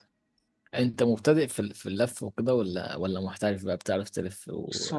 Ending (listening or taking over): taking over